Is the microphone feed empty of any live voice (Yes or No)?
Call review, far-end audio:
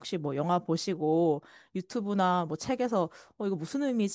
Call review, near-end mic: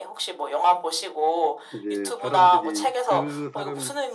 No